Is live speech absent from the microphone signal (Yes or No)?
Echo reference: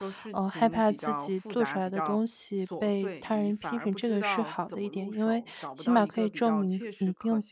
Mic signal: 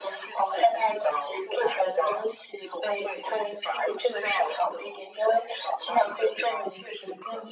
Yes